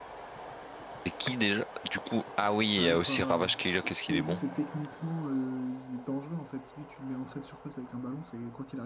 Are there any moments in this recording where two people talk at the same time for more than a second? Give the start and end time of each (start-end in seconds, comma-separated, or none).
2.8-4.4